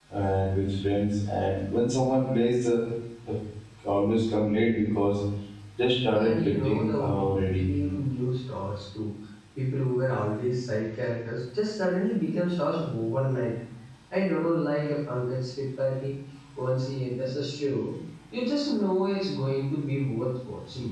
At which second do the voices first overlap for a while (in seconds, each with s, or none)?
6.1 s